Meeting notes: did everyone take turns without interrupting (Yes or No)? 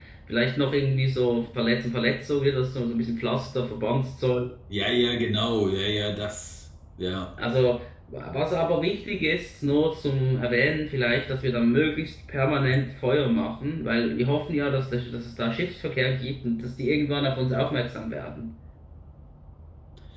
Yes